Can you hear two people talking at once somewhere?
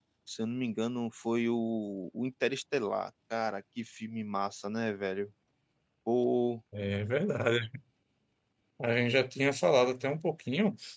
No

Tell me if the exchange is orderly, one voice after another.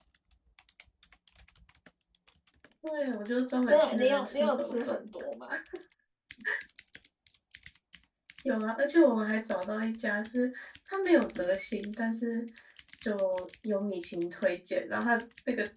No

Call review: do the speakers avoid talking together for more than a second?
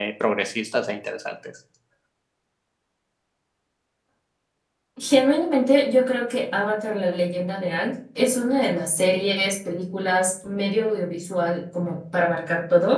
Yes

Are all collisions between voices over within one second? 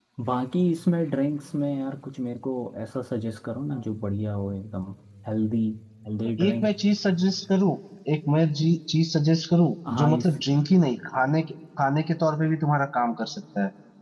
Yes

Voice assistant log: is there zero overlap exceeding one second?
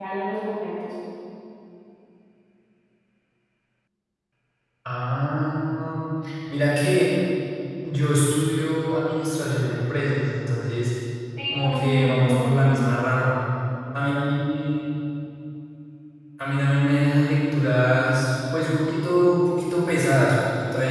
No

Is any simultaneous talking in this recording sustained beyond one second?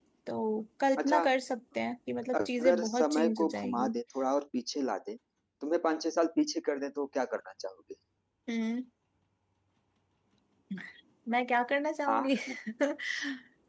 Yes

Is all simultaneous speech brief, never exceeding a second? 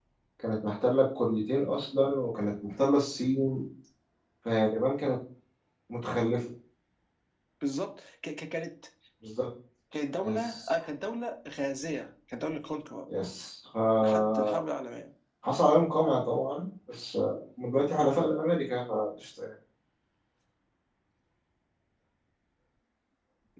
Yes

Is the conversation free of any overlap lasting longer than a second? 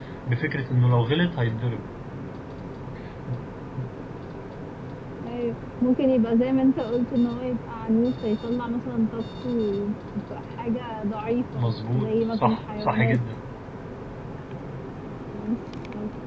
No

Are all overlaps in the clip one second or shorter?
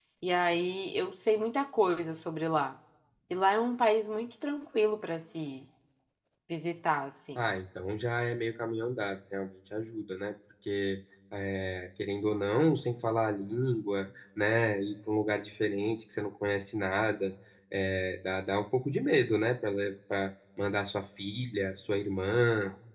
Yes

